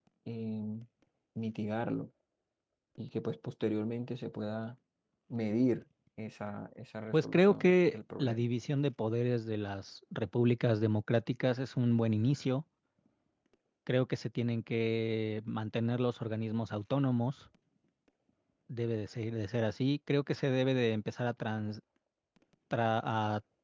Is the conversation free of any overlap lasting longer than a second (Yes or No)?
No